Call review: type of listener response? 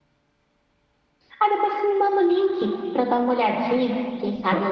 listening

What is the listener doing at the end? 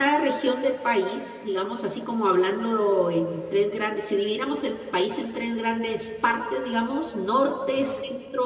listening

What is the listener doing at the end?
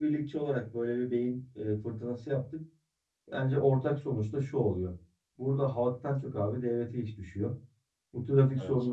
listening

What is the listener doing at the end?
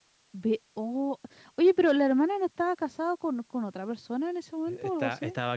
taking over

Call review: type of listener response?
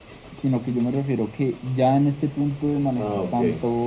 listening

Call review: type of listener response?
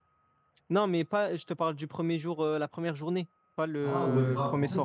taking over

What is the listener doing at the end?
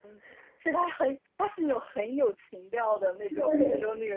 taking over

